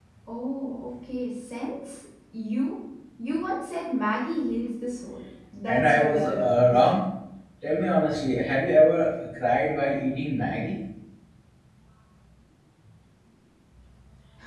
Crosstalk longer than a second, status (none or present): present